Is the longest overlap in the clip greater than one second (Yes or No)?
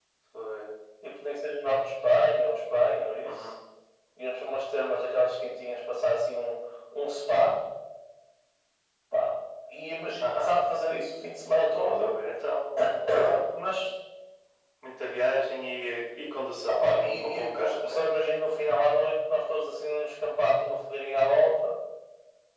Yes